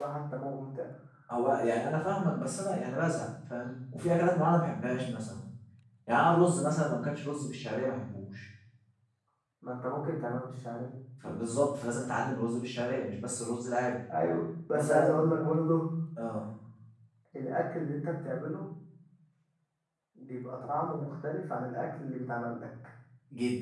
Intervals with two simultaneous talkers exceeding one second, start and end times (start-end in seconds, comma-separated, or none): none